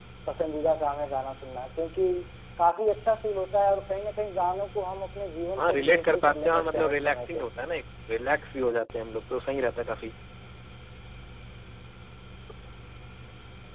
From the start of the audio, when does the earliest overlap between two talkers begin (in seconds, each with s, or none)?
5.6 s